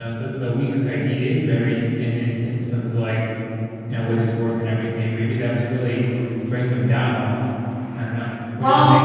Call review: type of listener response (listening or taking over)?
taking over